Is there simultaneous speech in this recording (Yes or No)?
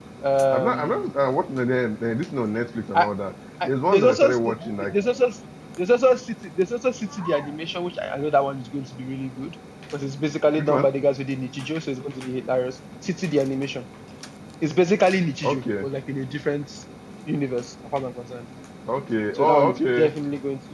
Yes